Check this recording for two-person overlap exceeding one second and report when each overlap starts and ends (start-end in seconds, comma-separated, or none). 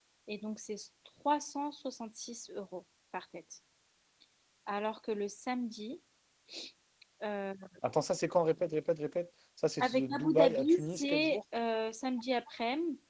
9.8-11.4